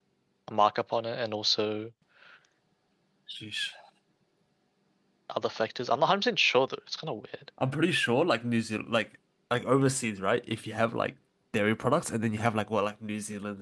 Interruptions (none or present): none